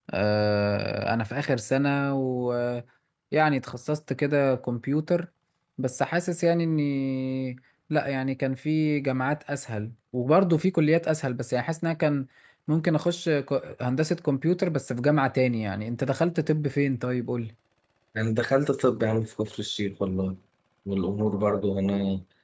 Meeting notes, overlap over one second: none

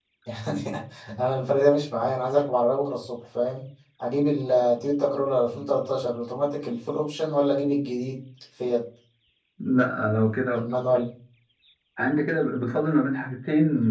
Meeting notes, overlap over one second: none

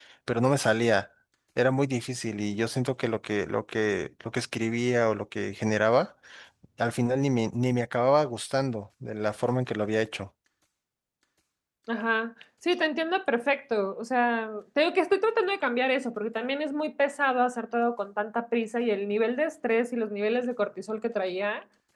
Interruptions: none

